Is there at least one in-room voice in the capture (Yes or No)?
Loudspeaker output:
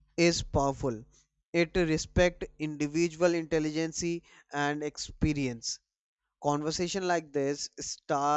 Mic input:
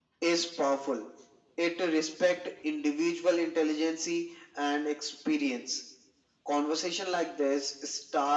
No